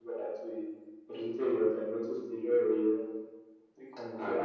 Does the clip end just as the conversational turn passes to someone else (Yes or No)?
Yes